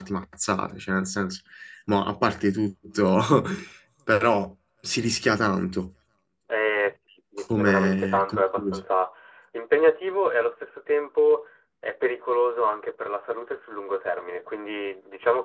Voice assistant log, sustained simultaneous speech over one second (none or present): present